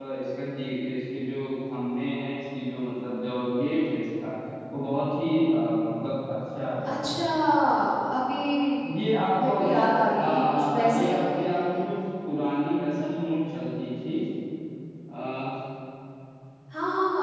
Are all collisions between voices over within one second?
No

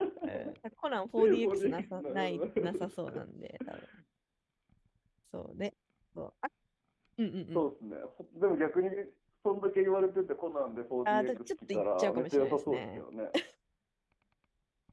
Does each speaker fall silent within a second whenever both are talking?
No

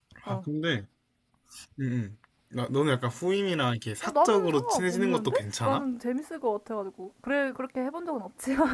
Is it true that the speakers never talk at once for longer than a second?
No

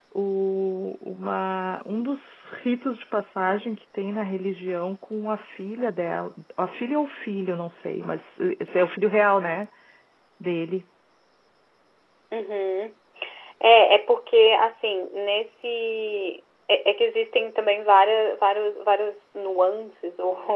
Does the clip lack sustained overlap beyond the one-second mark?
Yes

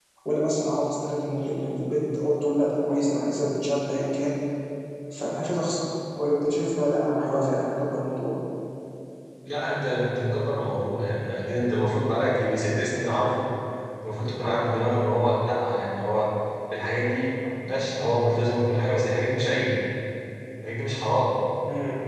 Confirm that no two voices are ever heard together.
Yes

